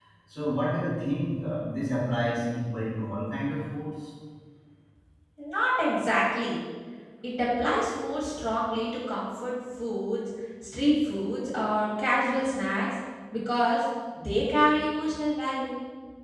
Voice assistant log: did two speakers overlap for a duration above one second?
No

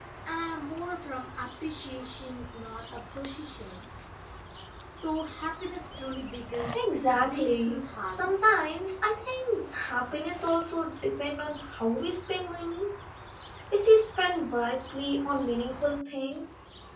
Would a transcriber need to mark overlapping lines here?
Yes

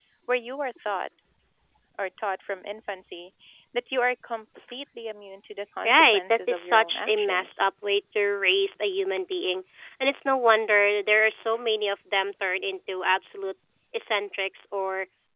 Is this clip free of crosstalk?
No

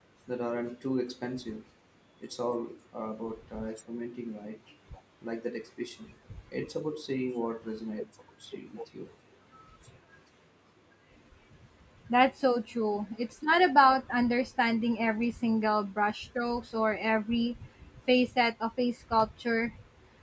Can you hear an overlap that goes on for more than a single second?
No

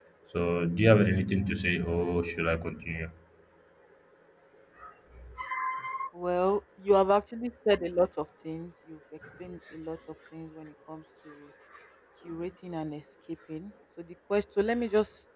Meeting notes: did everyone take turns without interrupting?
Yes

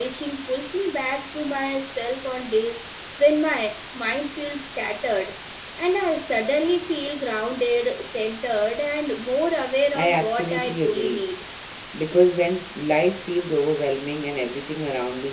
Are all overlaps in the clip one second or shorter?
No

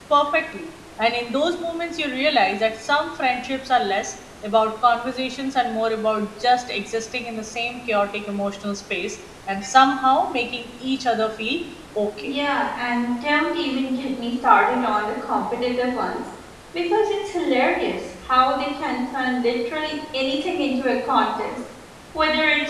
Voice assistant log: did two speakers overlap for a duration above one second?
No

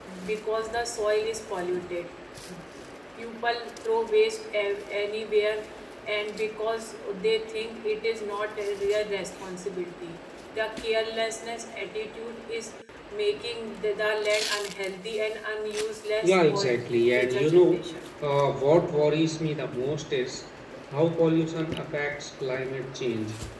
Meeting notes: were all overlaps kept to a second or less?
No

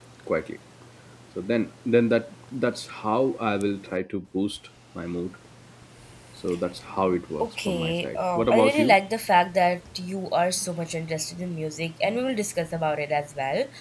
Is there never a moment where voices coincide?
No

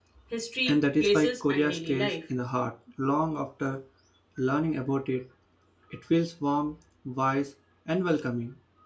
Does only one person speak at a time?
No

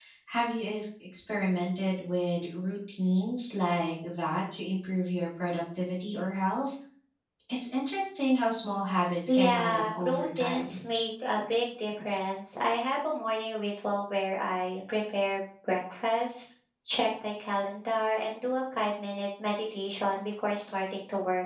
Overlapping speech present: Yes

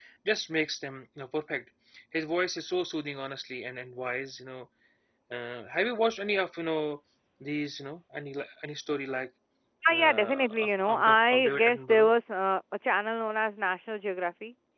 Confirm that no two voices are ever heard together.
No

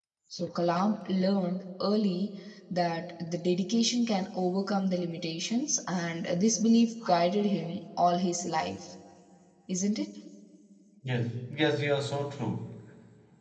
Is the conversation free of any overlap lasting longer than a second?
Yes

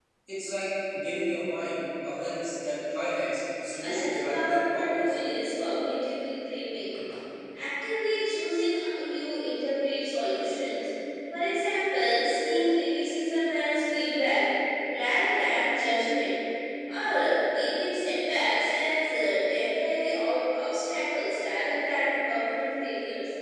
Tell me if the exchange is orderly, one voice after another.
No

